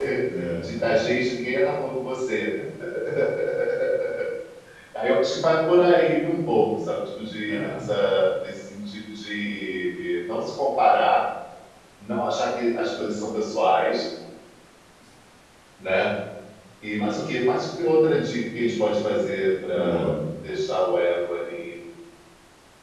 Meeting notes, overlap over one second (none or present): none